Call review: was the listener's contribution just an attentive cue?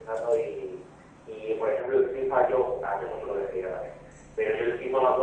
Yes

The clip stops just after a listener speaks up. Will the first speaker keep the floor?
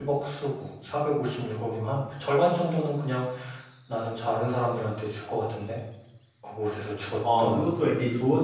No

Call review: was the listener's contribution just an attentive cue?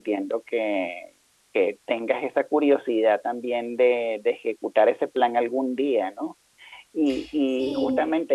Yes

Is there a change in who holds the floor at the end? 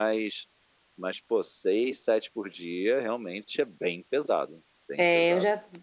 Yes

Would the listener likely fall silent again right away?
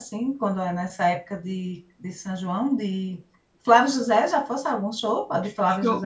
No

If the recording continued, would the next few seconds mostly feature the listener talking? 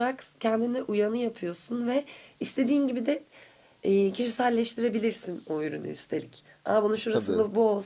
No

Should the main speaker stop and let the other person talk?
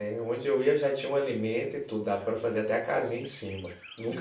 No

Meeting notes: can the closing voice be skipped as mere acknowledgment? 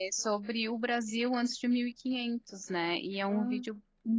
Yes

